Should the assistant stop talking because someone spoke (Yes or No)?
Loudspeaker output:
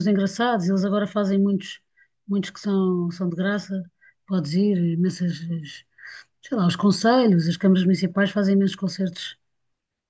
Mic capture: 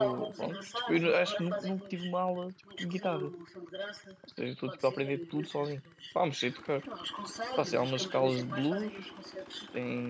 Yes